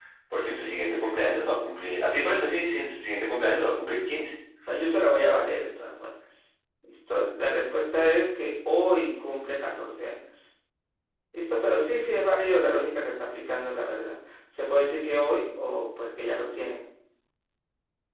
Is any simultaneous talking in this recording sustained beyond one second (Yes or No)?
No